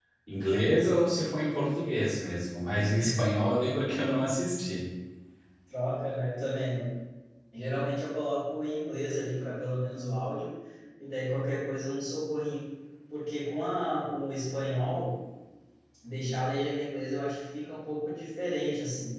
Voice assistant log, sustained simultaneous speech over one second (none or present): none